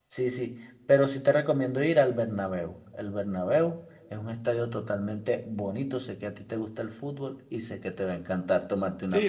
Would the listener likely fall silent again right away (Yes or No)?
No